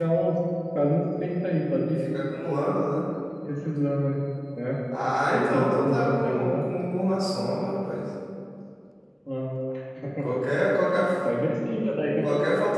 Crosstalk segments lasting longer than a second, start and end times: 5.3-6.7

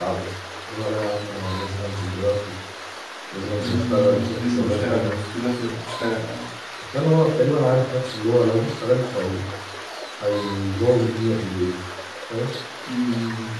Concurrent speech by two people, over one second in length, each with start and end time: 3.6-5.2

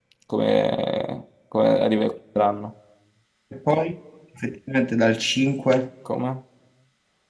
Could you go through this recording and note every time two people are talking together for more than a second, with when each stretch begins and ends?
none

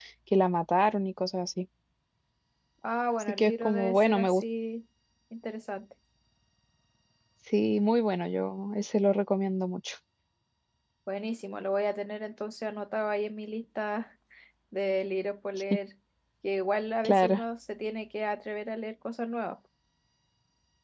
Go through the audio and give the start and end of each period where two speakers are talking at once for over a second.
3.2-4.4

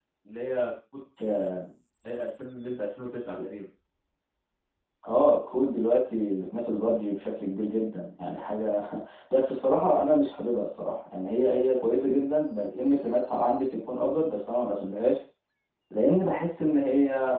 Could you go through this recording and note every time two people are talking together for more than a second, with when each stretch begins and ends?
none

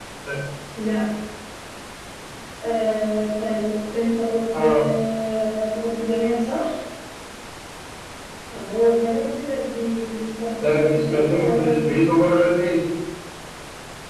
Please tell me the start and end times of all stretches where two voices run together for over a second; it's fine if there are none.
10.6-12.0

